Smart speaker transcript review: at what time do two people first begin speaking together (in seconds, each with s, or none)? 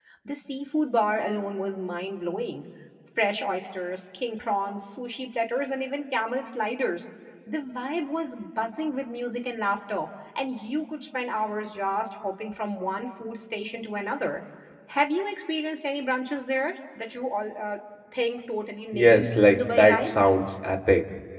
18.9 s